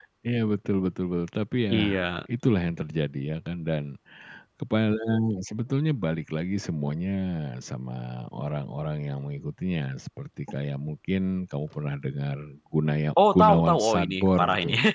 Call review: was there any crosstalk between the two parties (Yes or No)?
Yes